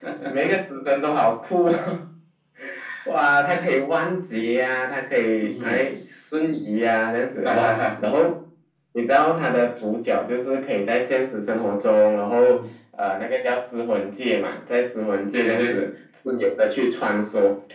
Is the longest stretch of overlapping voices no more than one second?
Yes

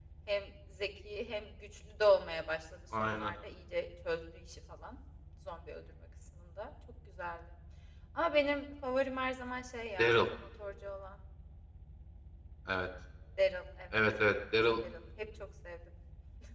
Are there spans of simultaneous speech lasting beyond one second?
No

